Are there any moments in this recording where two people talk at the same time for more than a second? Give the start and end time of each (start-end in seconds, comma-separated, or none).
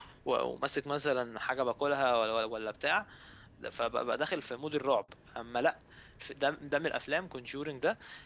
none